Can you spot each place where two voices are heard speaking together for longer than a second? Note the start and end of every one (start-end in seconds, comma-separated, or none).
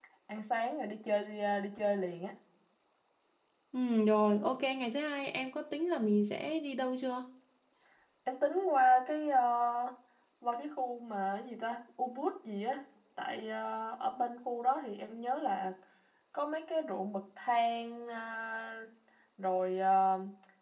none